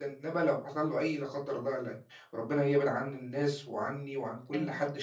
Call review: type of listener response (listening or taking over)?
listening